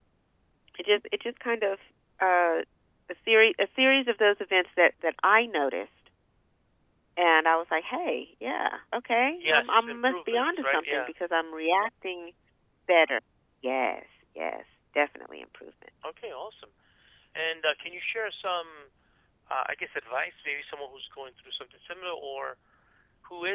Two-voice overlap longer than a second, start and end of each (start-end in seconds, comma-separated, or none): 9.4-11.1